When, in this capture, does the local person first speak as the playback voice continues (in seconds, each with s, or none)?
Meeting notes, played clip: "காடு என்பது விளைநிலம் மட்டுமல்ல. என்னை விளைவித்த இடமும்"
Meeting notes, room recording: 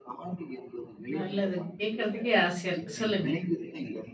1.2 s